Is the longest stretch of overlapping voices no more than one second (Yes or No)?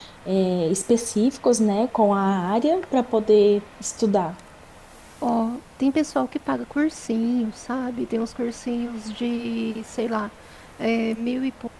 Yes